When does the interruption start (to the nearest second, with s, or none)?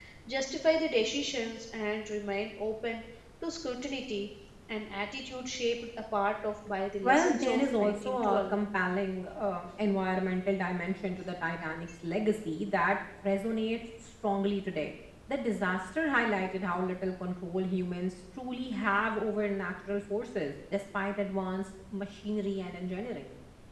7 s